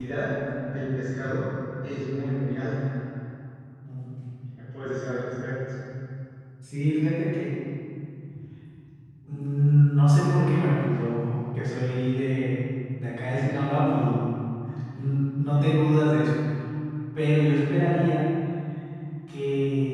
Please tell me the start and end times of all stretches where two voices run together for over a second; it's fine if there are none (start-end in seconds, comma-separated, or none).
none